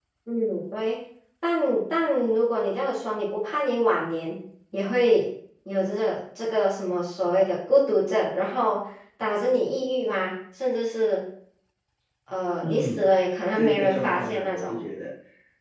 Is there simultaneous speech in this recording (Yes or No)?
Yes